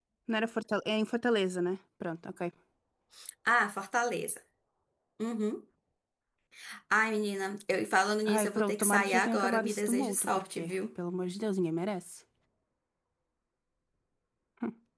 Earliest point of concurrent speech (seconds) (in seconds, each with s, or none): 8.2 s